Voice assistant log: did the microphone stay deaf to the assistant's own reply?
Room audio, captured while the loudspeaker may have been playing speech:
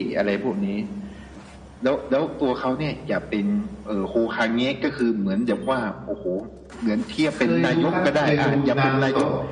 No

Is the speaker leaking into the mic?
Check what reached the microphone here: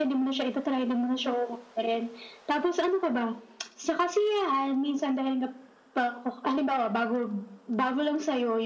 Yes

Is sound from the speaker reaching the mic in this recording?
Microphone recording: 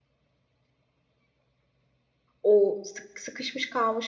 No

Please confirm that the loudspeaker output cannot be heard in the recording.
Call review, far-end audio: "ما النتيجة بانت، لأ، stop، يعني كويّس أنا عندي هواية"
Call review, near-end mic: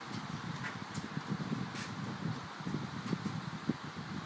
Yes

